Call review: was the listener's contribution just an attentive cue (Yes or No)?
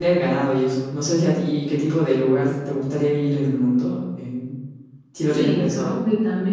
No